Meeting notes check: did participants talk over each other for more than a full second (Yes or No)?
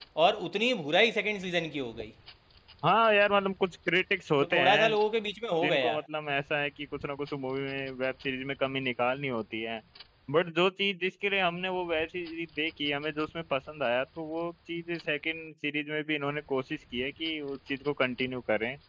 No